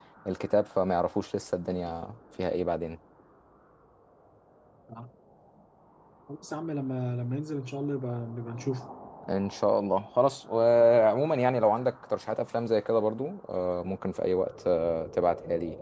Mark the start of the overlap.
none

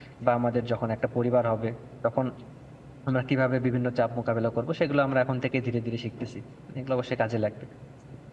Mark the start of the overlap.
none

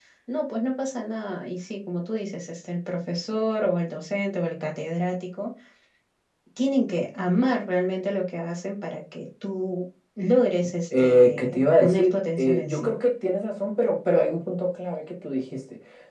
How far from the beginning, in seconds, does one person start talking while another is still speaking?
10.9 s

